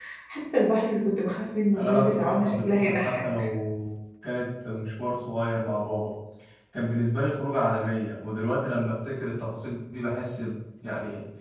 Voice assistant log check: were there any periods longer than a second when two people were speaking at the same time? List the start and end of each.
1.8-3.5

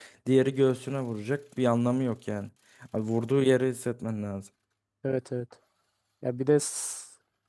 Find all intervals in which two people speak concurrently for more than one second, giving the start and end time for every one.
none

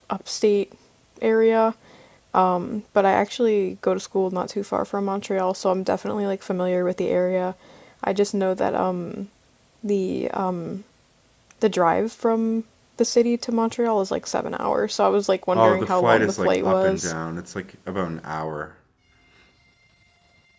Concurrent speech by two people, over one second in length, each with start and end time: 15.6-17.1

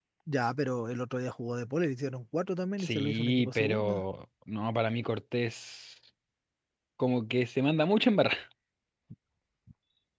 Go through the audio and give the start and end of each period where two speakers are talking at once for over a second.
2.8-4.0

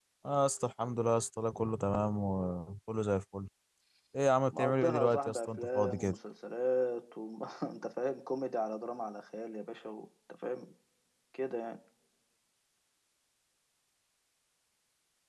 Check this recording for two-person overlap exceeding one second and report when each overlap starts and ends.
4.5-6.2

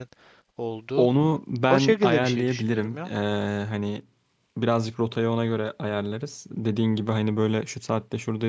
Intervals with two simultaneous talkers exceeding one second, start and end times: 1.7-3.1

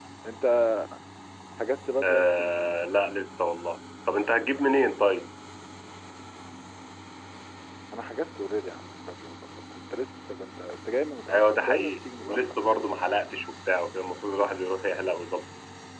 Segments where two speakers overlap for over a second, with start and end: 11.3-12.8

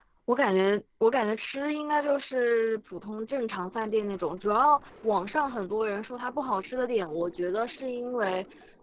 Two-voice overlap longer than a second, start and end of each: none

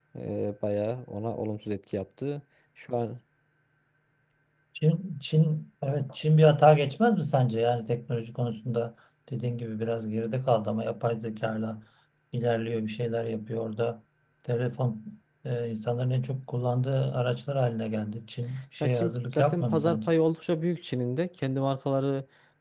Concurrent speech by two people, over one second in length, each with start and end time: 18.8-20.1

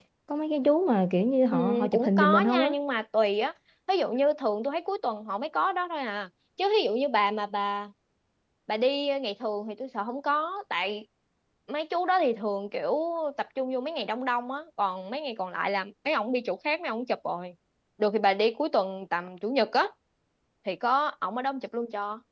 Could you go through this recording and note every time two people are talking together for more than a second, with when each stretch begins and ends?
1.5-2.7

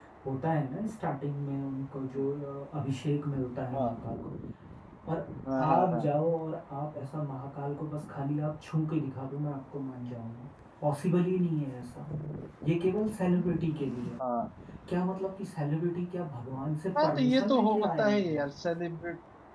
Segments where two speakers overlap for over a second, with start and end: 17.0-18.4

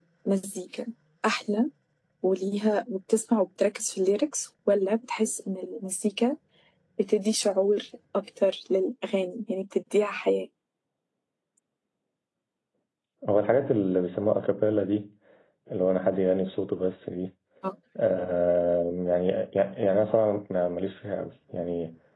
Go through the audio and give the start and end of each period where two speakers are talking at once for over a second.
none

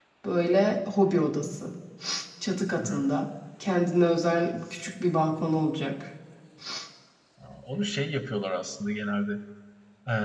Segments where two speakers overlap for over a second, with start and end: none

